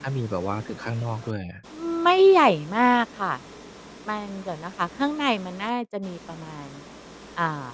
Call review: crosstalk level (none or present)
none